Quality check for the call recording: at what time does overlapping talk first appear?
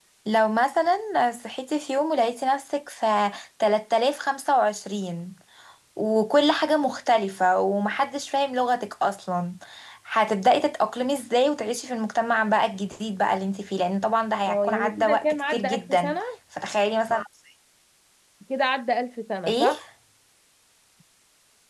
14.5 s

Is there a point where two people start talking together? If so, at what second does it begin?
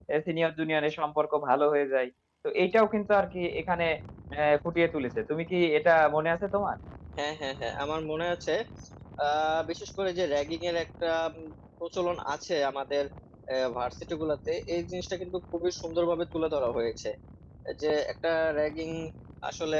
none

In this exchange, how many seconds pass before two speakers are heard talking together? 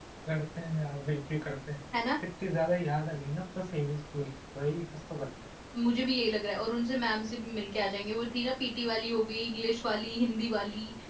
none

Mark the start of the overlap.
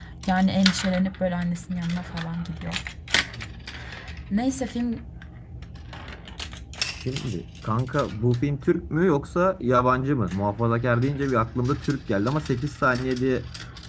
none

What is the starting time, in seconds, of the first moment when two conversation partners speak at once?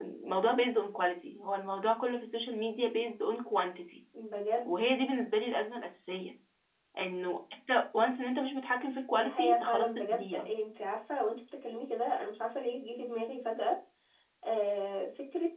9.1 s

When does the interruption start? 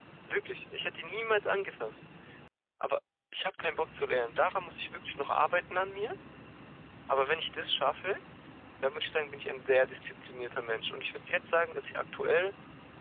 none

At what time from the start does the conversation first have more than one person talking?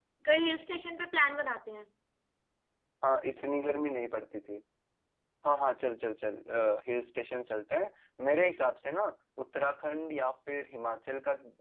none

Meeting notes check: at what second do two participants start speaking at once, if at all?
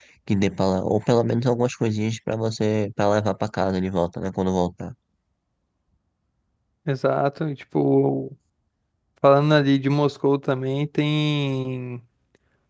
none

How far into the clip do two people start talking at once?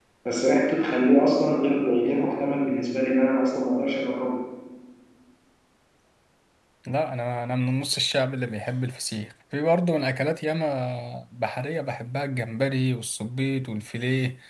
none

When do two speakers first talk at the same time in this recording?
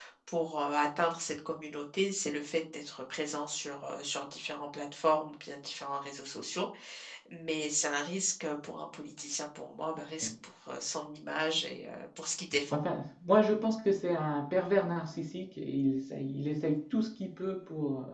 none

